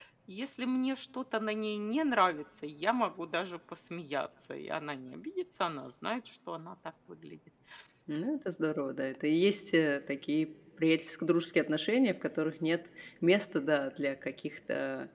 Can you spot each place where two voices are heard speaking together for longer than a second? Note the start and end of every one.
none

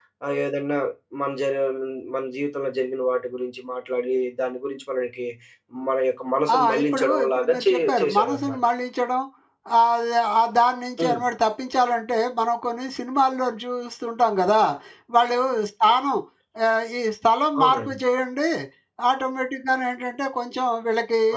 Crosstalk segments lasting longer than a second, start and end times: 6.6-8.6

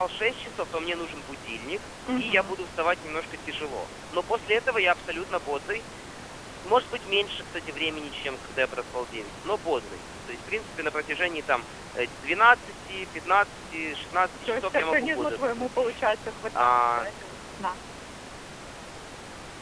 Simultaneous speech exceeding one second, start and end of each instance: 14.4-16.0

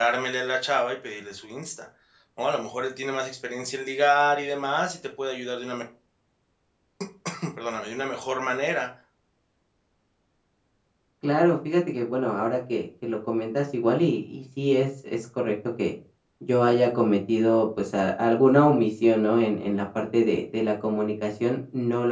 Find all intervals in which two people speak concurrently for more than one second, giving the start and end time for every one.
none

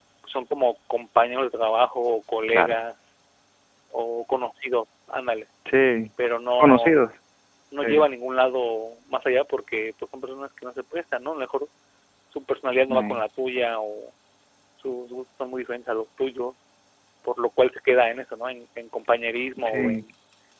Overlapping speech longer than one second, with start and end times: none

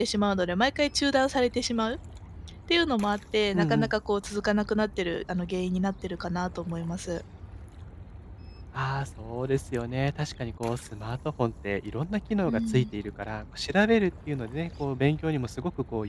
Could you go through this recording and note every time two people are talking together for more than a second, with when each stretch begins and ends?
none

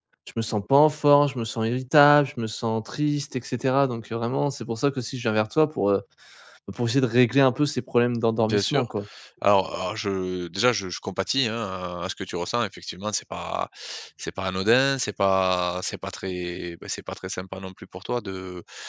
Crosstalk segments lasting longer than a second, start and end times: none

